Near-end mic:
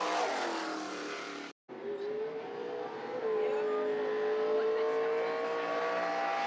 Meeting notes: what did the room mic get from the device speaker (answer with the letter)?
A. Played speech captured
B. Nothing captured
B